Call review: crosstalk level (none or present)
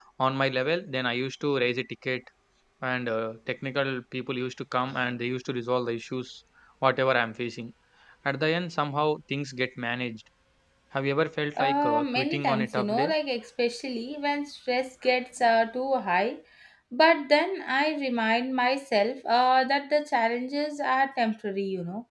present